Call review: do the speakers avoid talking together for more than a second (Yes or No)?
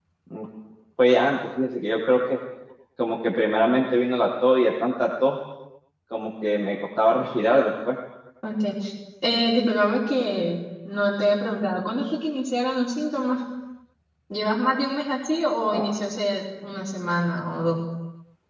Yes